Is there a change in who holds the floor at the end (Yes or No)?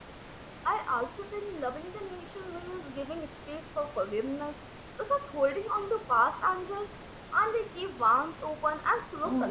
Yes